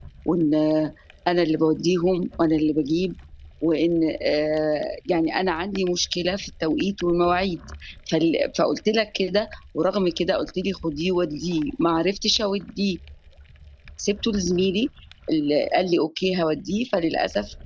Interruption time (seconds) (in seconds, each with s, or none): none